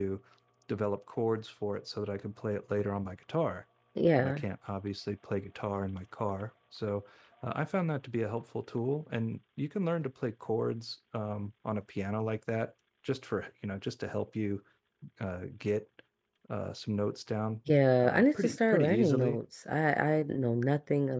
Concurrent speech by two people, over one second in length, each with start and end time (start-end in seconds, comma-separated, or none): 18.0-19.4